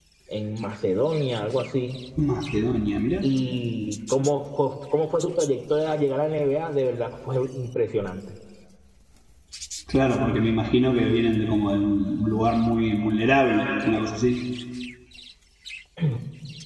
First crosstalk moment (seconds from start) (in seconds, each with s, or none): none